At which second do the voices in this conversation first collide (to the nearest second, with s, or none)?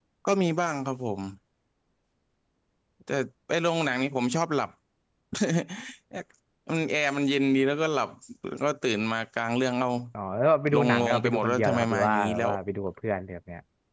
11 s